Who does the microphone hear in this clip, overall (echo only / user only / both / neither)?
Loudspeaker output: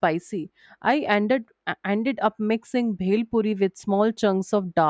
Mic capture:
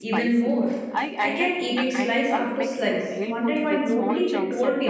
both